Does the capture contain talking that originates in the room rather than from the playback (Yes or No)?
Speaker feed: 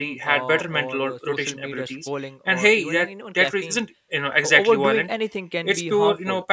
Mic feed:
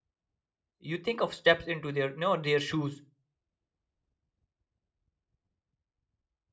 Yes